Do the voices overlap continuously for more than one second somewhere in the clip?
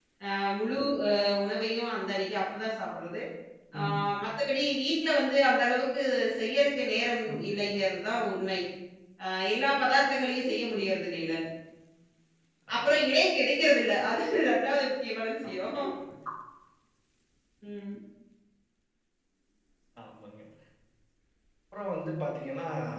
No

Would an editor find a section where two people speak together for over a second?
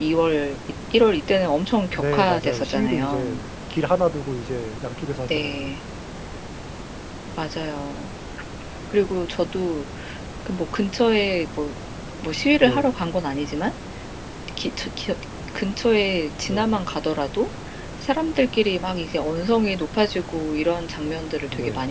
Yes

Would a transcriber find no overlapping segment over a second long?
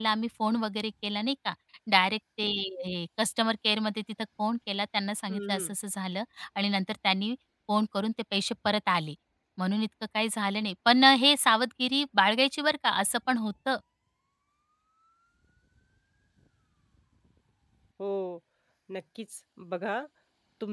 Yes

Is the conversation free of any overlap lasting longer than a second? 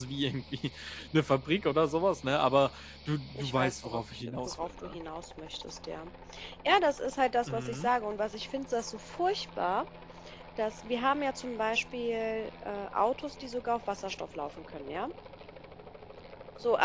No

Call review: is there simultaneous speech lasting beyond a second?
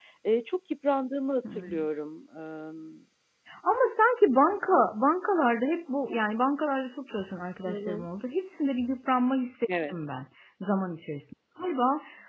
No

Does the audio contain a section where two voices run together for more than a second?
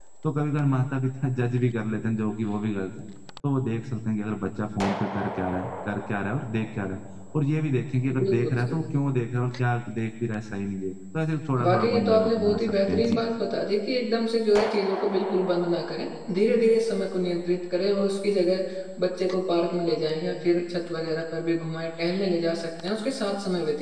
Yes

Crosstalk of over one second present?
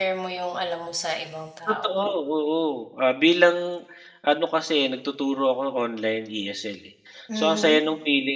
No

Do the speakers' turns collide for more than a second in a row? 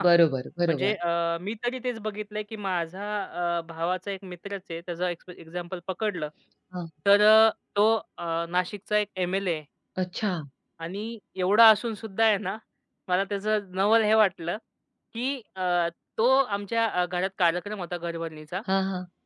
No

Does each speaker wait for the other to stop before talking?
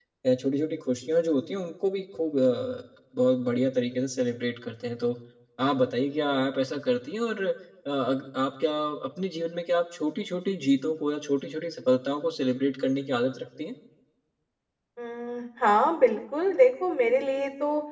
Yes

